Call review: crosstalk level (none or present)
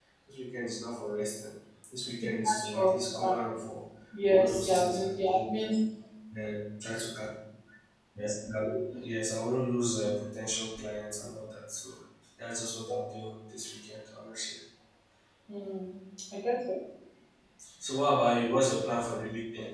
present